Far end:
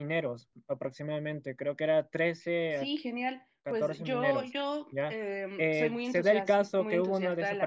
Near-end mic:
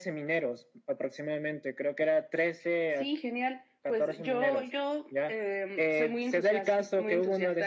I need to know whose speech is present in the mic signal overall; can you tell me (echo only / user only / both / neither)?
echo only